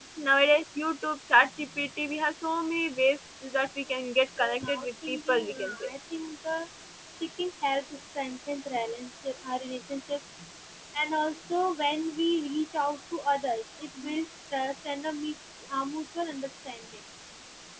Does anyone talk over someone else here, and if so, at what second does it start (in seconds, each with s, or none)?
4.4 s